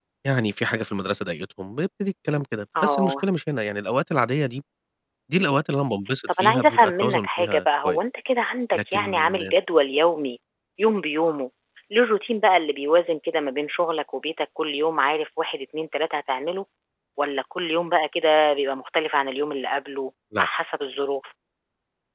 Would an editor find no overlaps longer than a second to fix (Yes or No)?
No